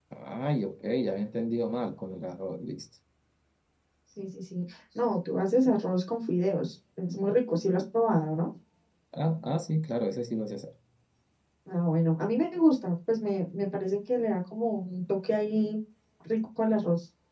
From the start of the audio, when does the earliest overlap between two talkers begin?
none

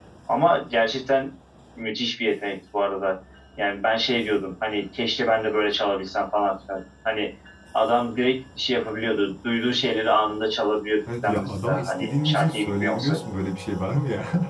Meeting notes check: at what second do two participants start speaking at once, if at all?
11.1 s

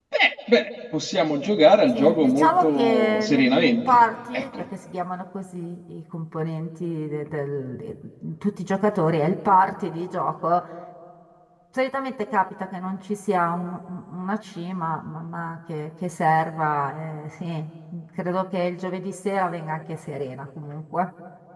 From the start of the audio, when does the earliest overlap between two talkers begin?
1.9 s

